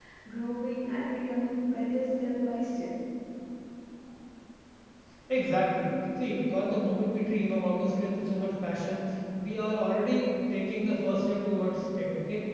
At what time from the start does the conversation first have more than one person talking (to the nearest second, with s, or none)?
none